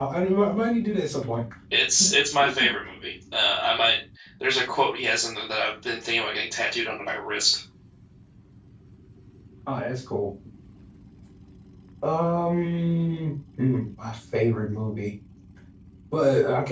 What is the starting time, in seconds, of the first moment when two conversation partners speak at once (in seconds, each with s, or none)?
none